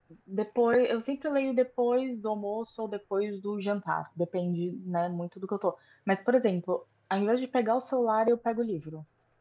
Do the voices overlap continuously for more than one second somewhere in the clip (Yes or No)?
No